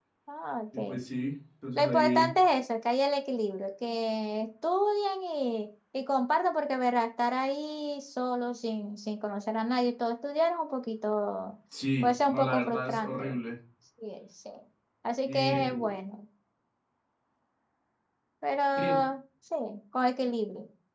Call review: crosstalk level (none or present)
present